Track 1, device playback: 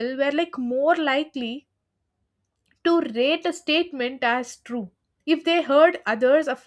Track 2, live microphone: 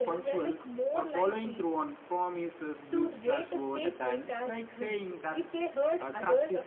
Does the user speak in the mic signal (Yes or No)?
Yes